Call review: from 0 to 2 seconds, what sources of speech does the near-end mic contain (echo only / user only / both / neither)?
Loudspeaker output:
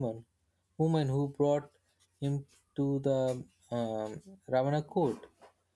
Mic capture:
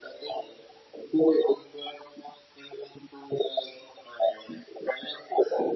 echo only